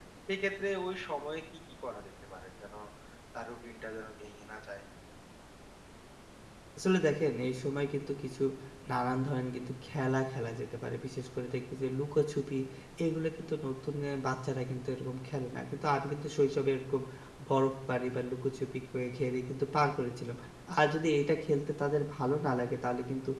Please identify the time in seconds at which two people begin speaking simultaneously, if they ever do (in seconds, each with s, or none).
none